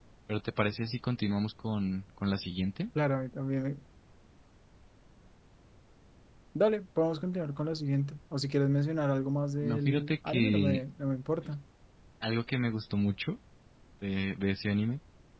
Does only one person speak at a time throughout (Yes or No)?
No